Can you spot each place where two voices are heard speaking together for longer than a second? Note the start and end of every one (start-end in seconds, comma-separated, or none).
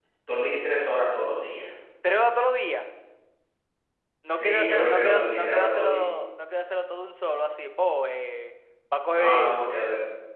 4.3-6.0